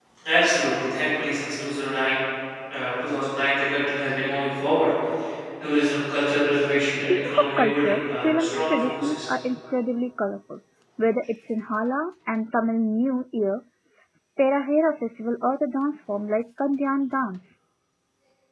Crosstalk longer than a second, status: present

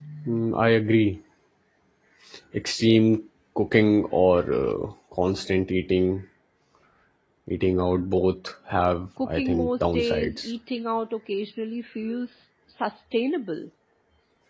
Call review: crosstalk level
present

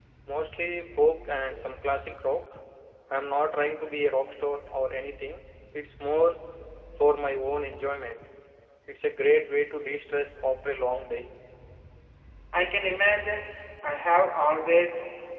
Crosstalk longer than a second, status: none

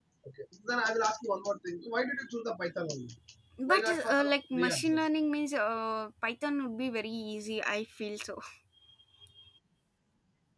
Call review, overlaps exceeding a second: present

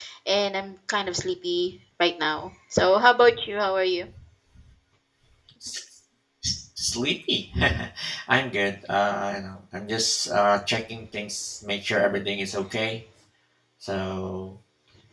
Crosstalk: none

